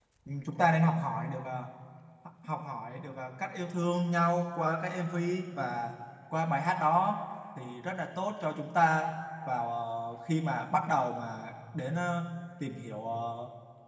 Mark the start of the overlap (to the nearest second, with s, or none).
none